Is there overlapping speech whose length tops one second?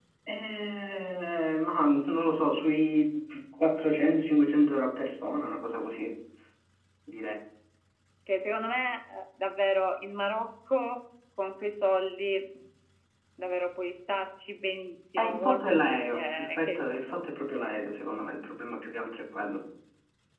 Yes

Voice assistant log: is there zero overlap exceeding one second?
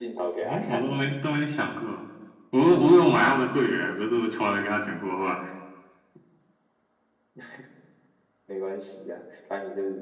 Yes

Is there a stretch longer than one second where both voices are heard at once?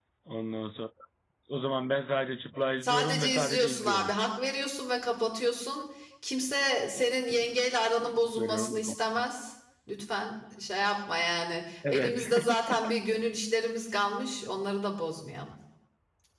Yes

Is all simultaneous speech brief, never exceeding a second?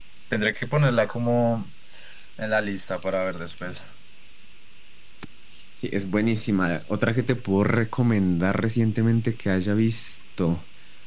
Yes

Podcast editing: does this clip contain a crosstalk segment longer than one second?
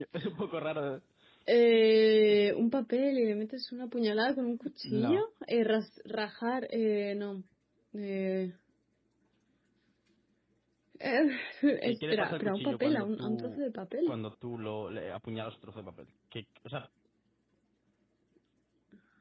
Yes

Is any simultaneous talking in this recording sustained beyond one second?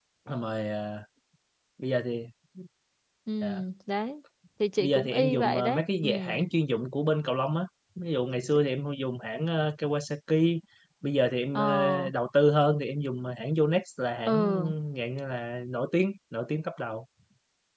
Yes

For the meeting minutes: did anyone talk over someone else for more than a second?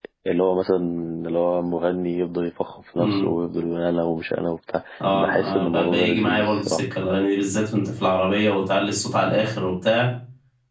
Yes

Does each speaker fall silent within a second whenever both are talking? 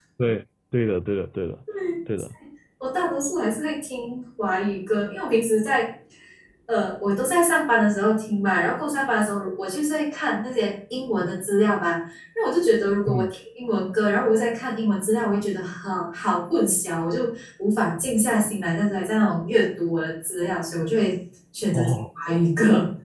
Yes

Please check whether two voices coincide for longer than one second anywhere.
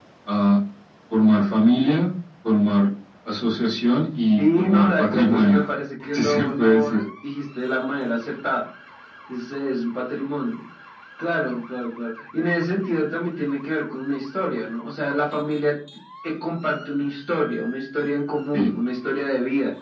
Yes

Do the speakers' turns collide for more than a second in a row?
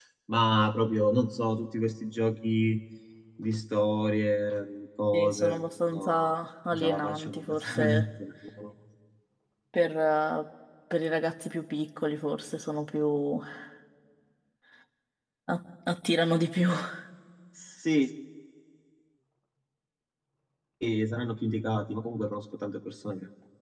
Yes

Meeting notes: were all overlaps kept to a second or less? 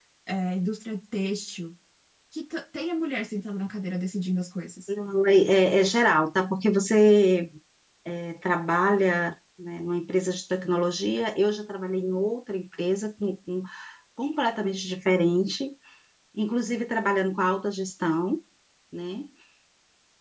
Yes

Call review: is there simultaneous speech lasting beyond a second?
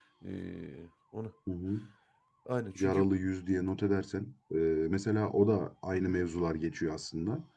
No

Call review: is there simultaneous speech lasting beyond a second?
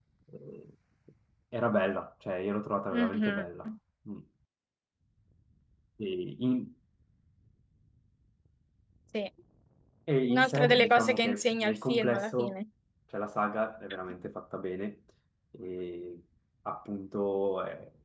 Yes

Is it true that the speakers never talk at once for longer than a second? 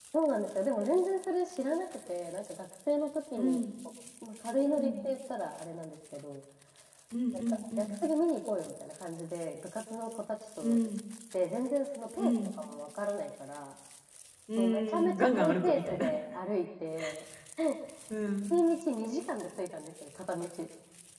No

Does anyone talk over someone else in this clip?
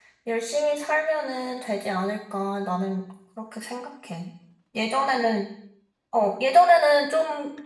No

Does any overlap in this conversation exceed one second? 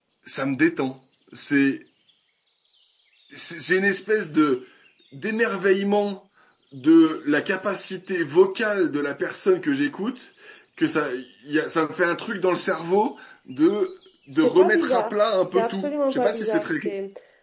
Yes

